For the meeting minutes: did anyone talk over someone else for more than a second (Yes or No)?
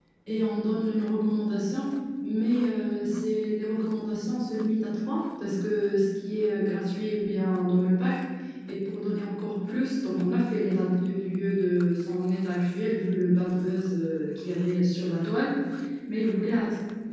No